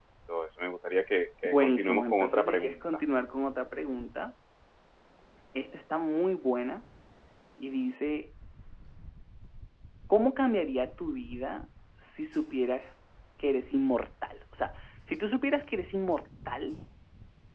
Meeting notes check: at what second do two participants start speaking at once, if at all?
1.4 s

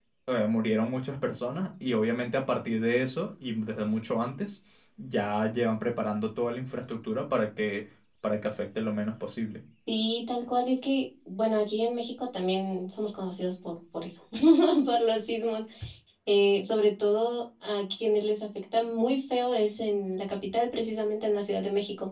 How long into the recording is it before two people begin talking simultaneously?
none

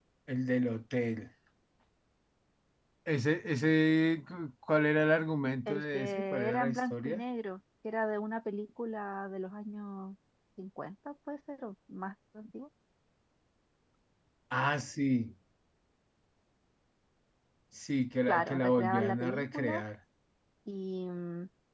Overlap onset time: 5.7 s

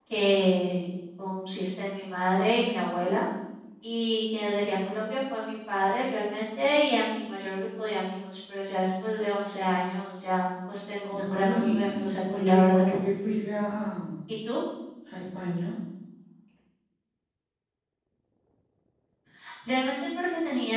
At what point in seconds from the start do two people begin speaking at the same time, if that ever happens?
11.1 s

